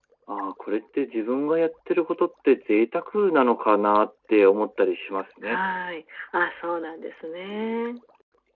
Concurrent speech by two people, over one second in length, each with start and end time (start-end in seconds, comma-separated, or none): none